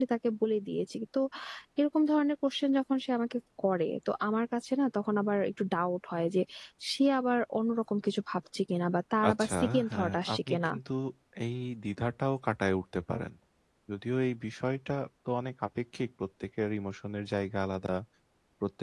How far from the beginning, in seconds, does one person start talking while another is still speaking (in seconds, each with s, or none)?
9.2 s